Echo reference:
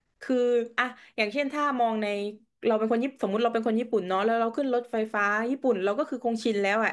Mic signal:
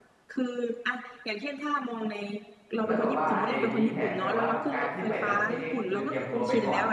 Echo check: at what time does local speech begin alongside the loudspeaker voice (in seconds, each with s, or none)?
2.8 s